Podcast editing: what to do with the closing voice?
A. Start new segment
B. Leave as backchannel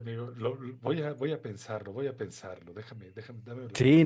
A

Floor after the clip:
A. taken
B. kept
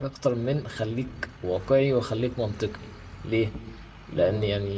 B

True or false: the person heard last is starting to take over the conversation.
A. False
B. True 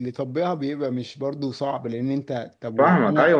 B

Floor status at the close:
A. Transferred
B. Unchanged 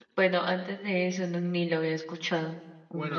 A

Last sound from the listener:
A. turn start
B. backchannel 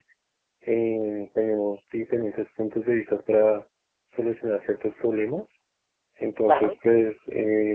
B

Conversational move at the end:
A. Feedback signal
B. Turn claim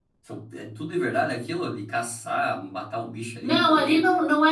B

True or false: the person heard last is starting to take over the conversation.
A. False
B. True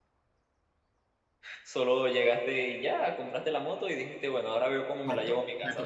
B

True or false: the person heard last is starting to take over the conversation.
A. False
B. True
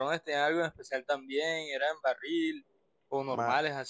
B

